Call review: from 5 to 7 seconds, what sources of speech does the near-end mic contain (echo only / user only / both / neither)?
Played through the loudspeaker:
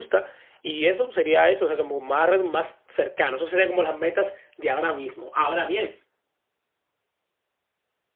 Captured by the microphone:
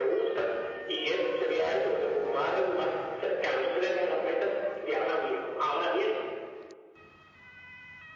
echo only